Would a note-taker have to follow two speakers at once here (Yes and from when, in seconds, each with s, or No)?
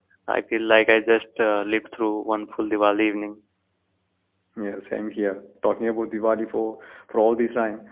No